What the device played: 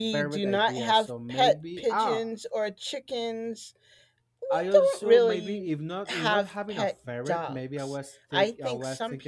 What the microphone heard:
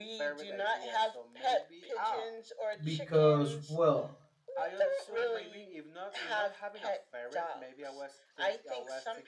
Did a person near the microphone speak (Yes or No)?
Yes